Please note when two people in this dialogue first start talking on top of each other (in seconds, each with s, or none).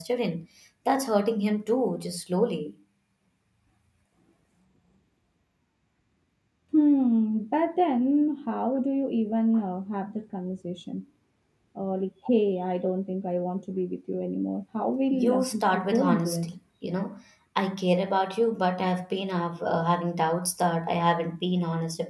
15.1 s